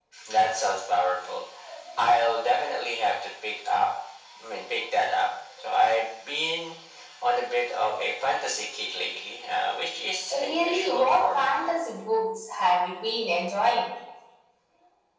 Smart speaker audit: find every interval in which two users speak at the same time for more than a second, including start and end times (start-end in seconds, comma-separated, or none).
10.3-11.5